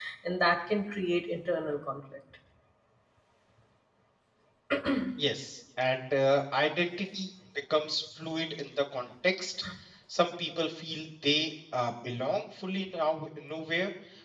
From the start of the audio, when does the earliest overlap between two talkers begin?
none

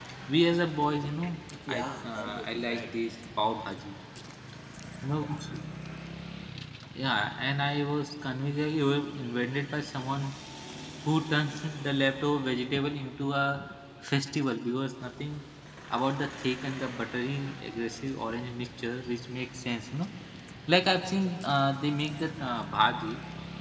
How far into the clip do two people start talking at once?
1.7 s

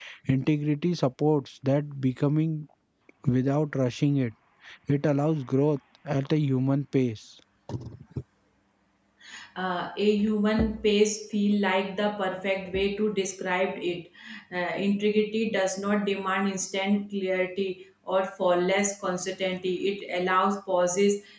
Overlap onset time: none

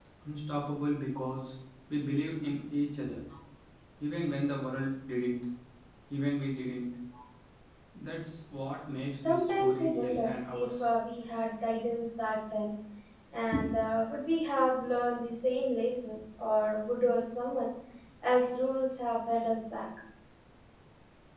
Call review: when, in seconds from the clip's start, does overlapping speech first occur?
9.2 s

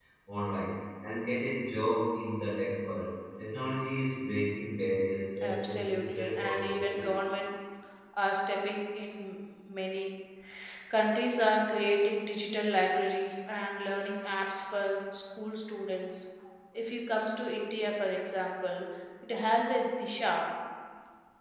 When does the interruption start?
5.4 s

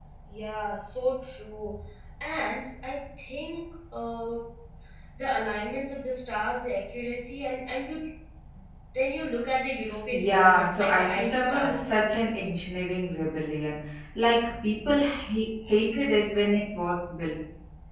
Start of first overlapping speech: 10.1 s

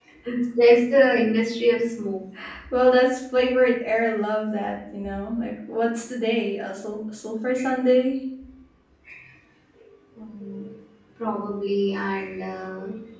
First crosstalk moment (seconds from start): none

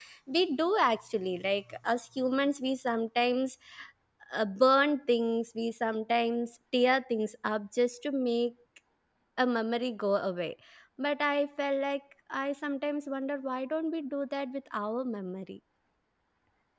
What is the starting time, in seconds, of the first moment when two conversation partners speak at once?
none

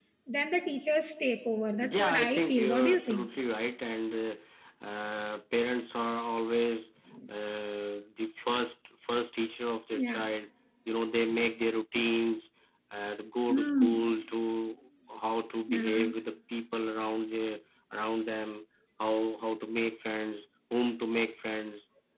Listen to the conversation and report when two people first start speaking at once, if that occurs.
1.8 s

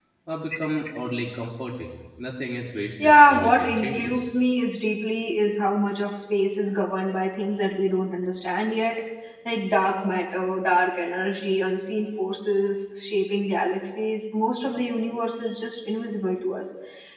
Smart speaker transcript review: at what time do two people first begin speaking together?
3.0 s

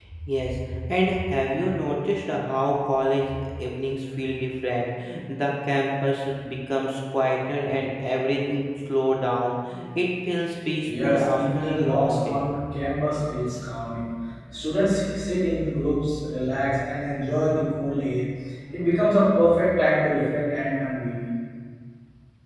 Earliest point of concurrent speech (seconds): 10.8 s

